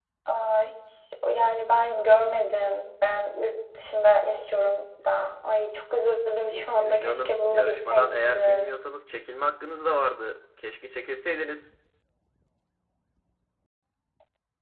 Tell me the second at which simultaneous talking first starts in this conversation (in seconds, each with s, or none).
6.8 s